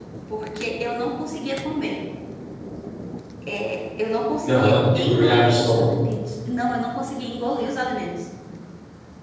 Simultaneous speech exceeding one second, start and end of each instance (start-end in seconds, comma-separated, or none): 4.5-6.0